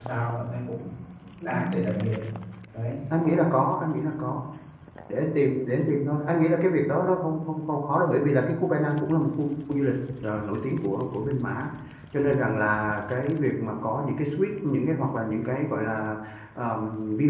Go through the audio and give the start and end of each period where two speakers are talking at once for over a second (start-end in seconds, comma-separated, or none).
none